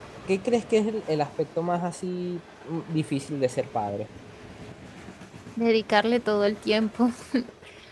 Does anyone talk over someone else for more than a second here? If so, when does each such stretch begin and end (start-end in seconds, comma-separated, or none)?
none